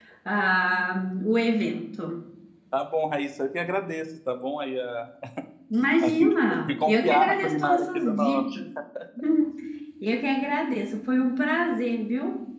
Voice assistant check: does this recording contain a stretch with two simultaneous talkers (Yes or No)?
Yes